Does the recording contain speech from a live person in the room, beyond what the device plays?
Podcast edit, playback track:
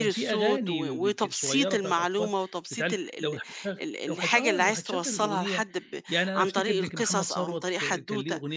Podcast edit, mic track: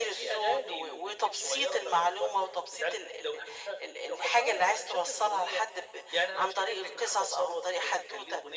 No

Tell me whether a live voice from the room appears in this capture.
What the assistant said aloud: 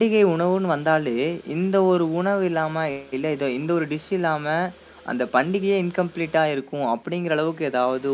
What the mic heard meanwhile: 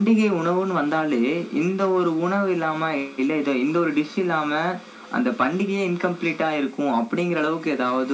No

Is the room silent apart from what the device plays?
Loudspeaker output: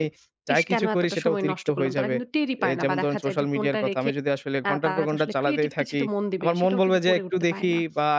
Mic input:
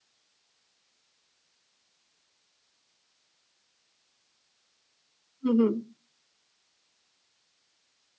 No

